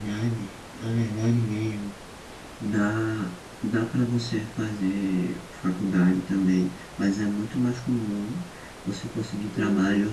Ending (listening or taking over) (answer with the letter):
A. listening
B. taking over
A